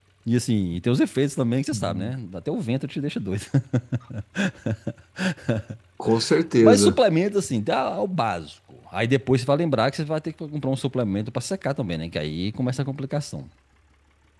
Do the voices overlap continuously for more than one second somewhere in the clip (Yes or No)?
No